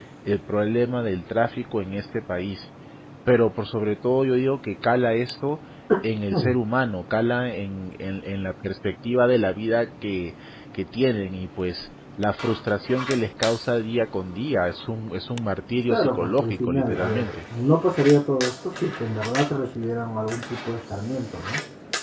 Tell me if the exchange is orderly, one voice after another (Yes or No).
No